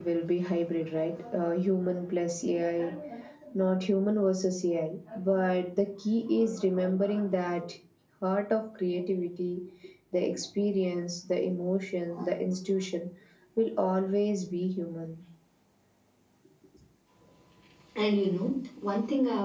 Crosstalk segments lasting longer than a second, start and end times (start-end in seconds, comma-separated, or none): none